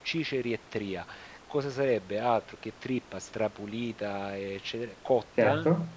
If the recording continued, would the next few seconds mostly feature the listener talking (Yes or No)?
No